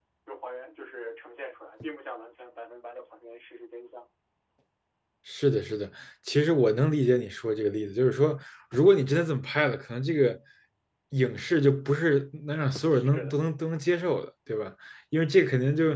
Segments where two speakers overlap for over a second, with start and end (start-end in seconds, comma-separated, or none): none